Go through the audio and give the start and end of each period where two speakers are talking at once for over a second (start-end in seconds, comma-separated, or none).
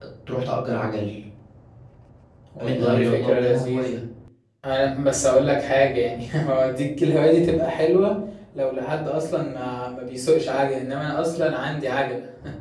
2.6-3.8